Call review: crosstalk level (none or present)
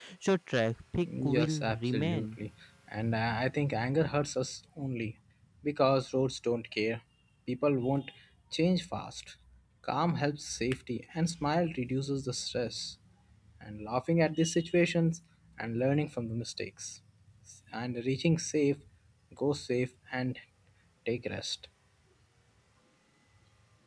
present